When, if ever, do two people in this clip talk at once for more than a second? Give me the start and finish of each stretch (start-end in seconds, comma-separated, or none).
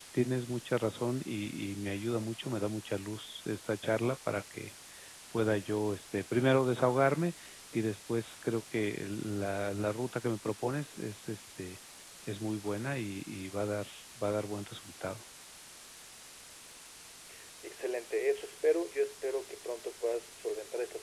none